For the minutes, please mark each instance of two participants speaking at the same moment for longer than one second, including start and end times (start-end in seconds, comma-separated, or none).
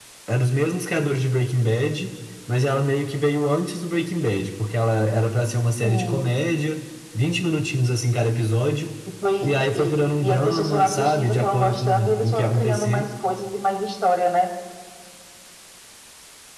9.8-13.1